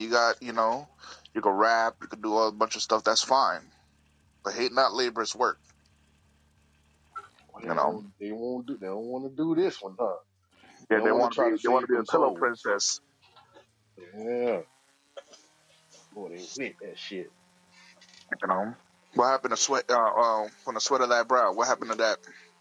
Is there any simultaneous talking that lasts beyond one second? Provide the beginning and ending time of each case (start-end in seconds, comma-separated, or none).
10.9-12.5